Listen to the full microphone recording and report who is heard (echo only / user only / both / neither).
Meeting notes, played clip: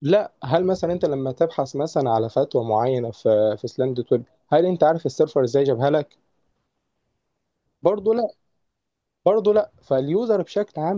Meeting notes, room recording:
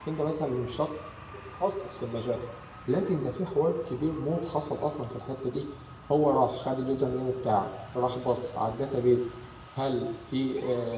user only